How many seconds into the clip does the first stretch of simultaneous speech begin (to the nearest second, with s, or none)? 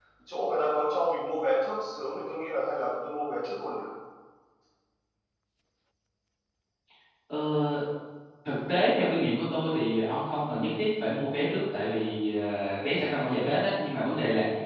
none